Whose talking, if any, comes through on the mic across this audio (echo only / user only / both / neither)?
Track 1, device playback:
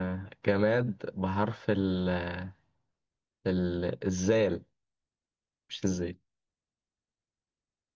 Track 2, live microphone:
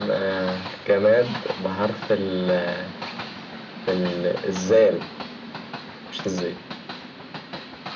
echo only